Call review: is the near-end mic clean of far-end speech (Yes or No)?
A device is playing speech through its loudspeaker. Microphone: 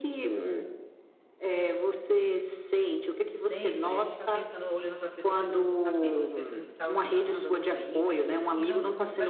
No